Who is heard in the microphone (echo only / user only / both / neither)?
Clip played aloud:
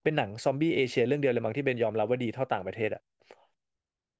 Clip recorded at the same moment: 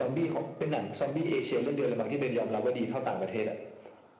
echo only